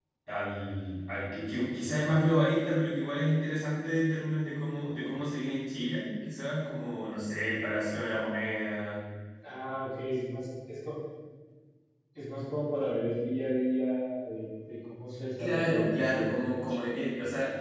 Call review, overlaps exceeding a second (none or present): present